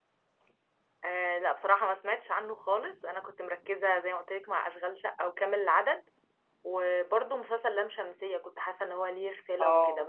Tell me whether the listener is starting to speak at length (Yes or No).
No